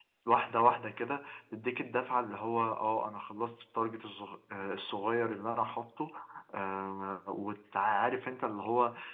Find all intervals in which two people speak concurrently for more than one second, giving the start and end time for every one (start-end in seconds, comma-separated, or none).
none